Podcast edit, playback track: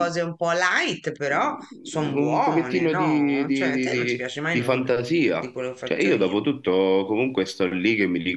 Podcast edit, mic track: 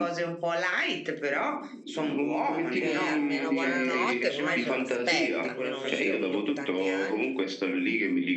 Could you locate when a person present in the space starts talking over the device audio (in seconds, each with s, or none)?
2.7 s